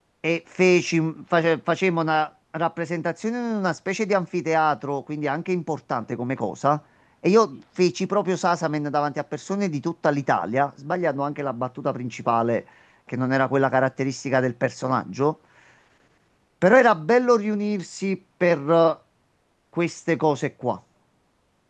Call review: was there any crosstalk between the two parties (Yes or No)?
No